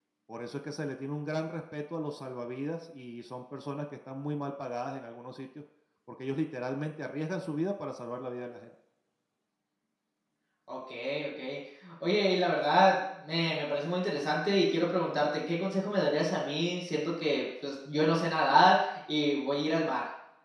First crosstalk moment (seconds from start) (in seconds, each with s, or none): none